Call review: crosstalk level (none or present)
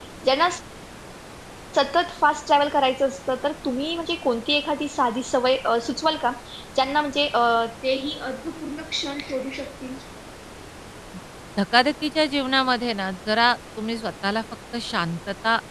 none